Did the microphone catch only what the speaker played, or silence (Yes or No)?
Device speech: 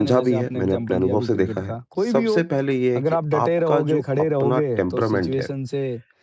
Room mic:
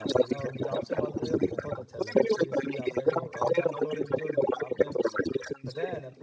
No